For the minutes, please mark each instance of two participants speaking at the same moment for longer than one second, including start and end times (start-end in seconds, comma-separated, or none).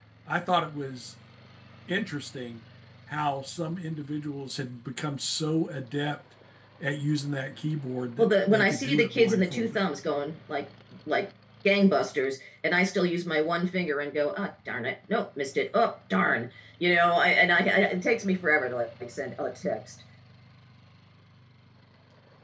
8.2-9.8